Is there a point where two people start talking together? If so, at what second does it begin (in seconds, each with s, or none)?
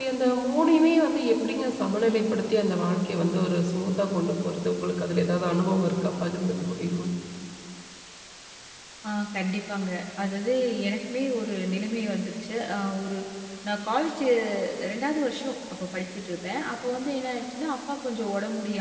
none